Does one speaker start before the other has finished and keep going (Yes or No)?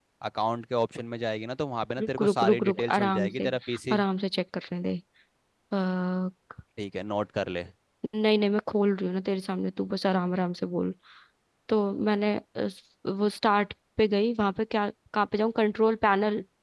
Yes